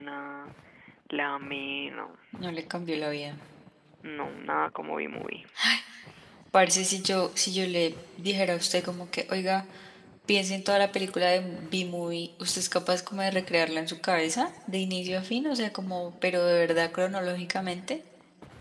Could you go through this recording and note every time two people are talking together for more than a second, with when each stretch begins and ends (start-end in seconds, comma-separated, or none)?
none